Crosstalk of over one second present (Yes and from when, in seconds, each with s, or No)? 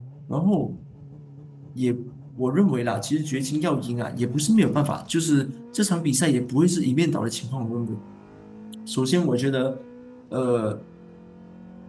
No